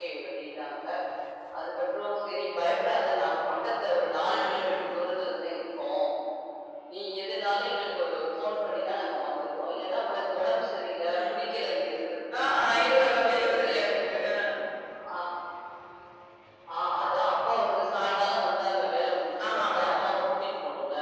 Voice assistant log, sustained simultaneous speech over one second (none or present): present